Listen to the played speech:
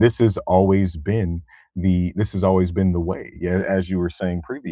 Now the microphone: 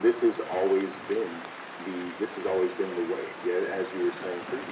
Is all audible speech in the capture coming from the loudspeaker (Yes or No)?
Yes